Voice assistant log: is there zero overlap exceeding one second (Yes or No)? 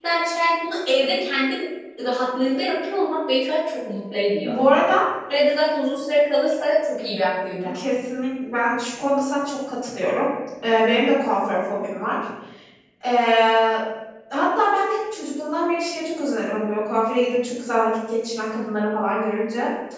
Yes